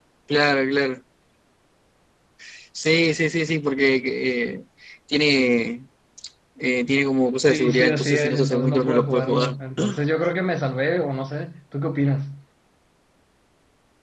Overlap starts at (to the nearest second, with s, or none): 7 s